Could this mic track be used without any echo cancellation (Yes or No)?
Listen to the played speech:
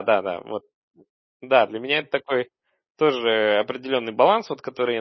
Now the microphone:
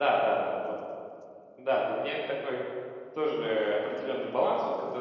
No